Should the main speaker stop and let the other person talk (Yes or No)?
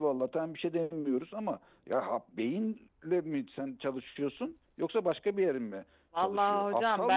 Yes